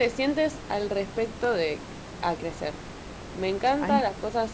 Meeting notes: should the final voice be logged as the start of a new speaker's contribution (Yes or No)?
No